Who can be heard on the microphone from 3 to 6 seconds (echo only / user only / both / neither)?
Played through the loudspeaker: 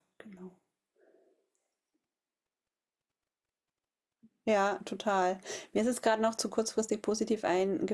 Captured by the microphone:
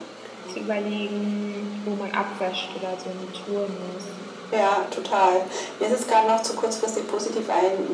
both